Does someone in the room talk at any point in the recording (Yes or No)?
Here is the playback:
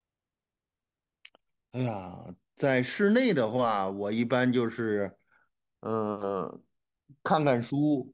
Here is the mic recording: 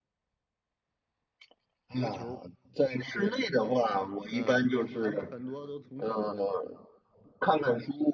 Yes